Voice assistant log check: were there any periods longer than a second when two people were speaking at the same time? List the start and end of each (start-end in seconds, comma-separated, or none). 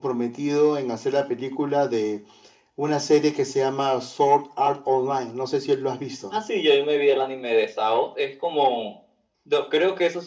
none